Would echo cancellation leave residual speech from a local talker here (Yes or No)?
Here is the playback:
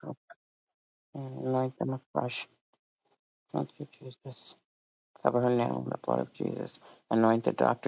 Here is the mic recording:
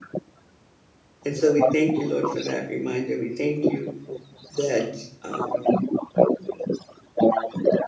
Yes